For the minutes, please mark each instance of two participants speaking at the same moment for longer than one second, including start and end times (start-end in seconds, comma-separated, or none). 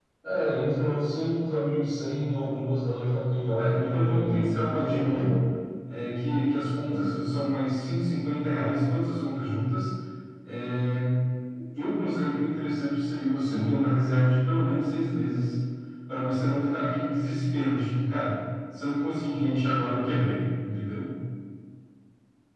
3.6-5.4